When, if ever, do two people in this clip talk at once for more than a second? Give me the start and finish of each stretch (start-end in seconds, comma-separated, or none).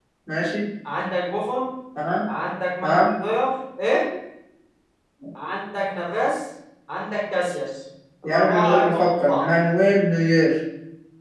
8.2-9.4